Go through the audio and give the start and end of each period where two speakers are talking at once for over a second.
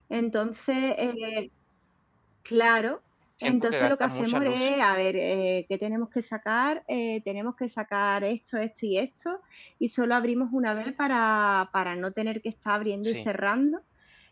3.4-4.7

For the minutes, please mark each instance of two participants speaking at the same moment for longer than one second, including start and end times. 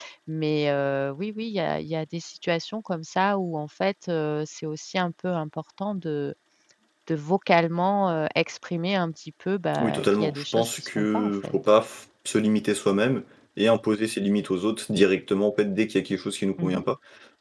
9.8-11.5

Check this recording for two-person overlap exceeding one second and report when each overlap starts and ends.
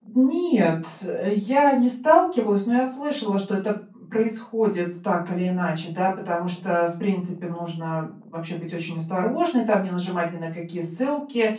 none

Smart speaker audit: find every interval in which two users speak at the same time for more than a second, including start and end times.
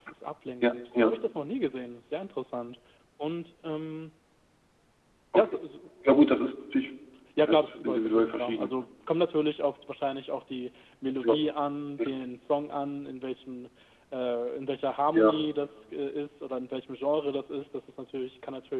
7.5-8.7

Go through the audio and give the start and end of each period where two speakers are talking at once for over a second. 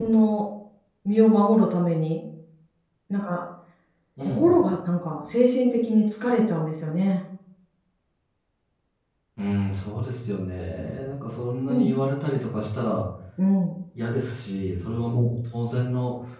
none

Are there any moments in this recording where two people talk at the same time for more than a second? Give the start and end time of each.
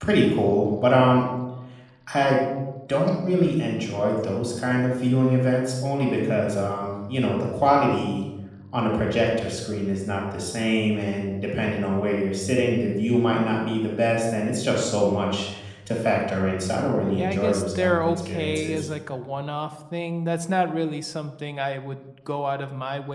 17.2-18.9

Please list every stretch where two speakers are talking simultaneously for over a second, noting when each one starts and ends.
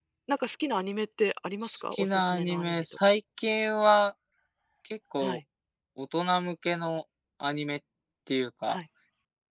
1.6-3.1

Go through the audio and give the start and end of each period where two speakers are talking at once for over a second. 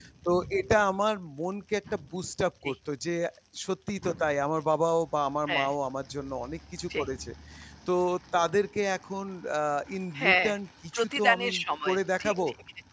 10.9-12.3

